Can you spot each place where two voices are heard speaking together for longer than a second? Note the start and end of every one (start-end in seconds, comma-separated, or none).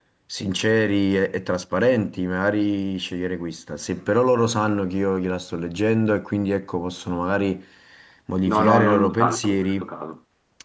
8.4-9.8